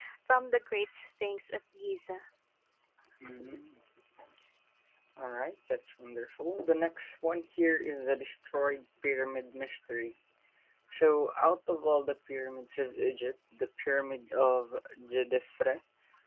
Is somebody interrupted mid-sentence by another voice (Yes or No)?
No